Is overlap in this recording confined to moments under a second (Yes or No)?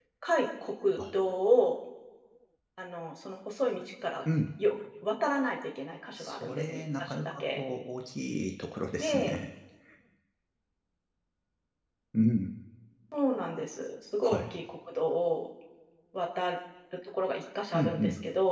No